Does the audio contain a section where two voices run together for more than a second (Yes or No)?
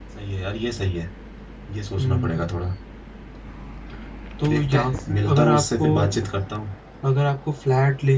Yes